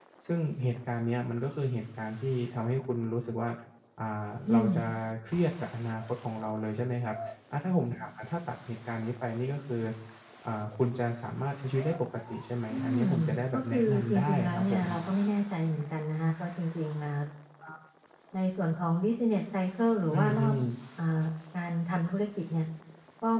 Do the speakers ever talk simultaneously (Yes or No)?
Yes